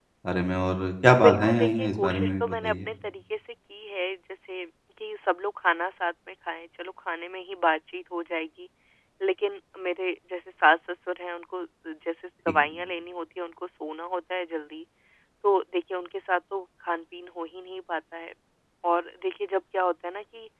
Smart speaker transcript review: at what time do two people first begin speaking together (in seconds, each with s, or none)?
1.2 s